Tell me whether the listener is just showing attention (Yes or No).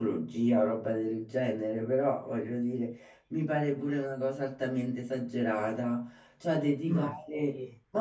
Yes